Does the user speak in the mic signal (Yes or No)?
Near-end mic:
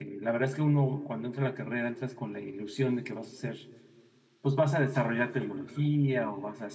Yes